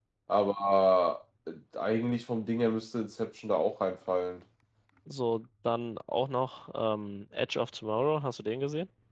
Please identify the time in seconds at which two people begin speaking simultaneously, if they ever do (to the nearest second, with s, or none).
none